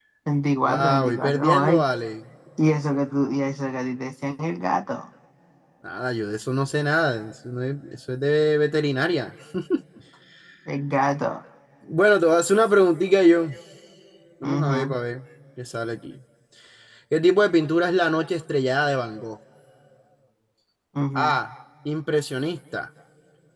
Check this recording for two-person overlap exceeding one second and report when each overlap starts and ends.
0.6-1.8

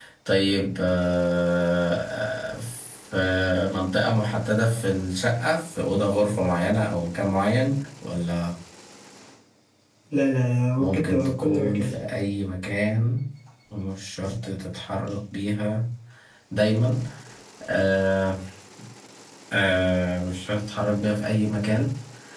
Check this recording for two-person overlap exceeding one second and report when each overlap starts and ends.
10.8-12.0

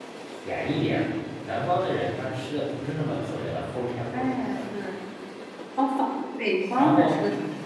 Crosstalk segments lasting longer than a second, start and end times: none

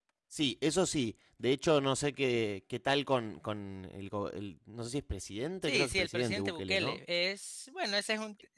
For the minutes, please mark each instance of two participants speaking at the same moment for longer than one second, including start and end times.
5.6-7.0

